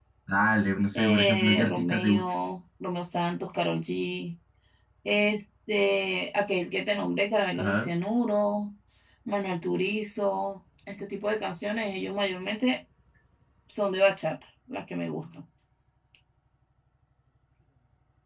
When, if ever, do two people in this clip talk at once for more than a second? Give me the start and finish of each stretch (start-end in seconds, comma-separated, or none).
1.0-2.3